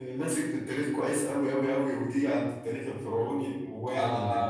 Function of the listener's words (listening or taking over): taking over